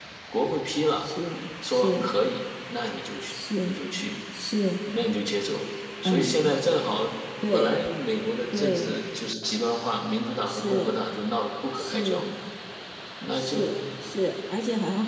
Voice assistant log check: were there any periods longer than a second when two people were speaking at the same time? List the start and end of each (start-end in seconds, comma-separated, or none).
none